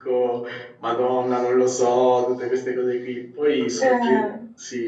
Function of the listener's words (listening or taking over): listening